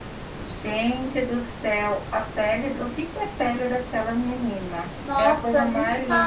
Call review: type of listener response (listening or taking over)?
taking over